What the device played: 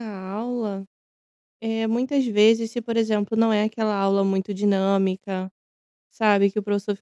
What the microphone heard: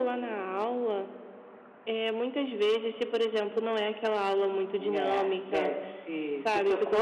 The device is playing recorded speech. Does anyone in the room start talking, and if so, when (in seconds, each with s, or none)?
4.9 s